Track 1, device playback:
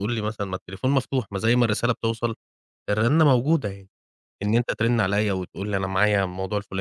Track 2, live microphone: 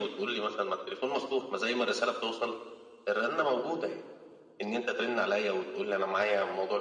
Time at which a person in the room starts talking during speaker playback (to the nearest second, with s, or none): none